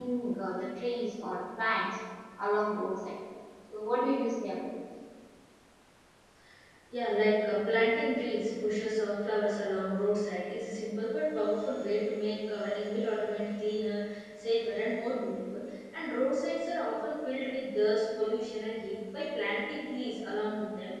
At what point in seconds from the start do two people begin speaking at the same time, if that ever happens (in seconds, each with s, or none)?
none